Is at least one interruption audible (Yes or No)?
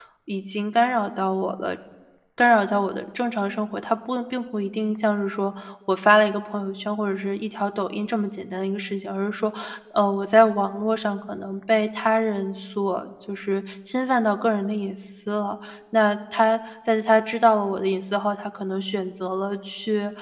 No